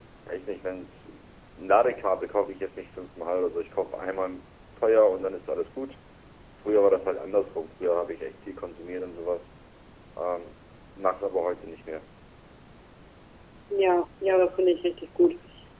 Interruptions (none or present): none